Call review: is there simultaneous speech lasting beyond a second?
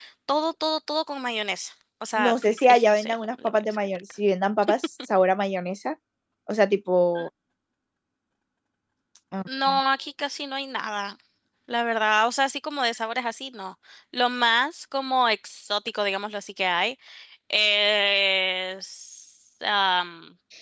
Yes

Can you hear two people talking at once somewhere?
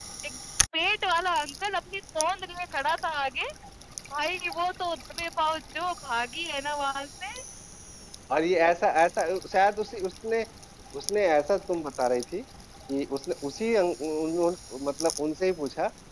No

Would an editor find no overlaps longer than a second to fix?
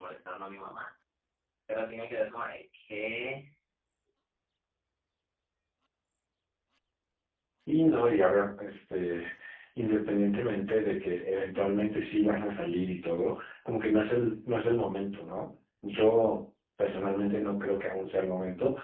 Yes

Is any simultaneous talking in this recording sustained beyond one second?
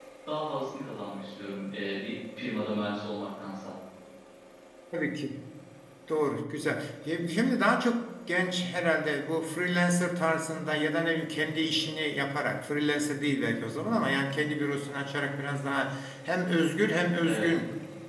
No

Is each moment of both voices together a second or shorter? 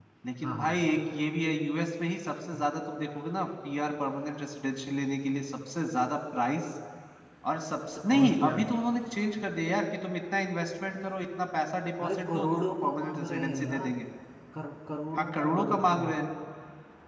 No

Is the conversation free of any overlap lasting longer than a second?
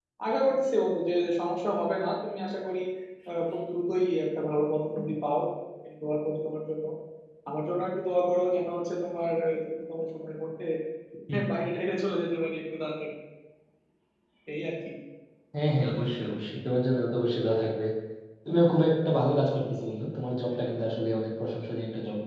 Yes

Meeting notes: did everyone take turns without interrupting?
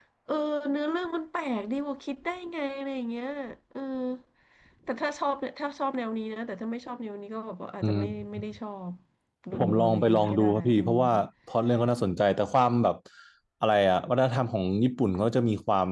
No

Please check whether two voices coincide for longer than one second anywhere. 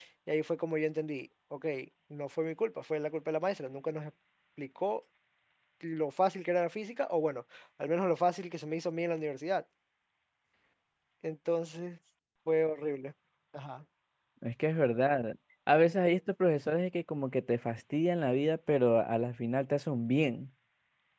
No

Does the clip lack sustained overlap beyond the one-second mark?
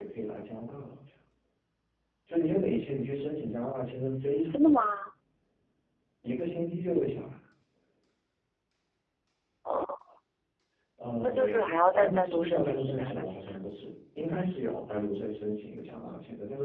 No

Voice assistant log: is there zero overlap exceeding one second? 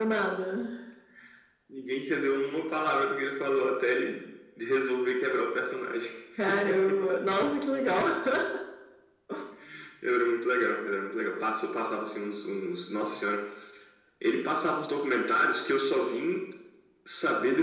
Yes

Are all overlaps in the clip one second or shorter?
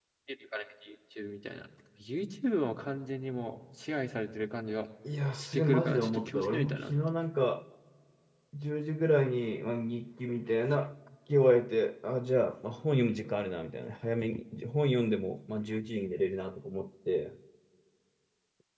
No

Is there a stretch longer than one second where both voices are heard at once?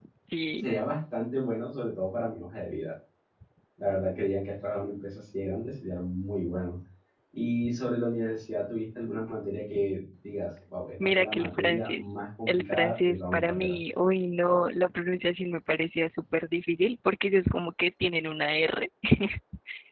Yes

